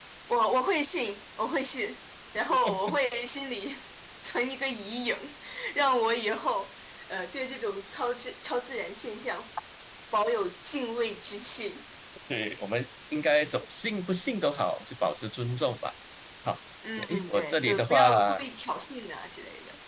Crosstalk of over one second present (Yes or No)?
Yes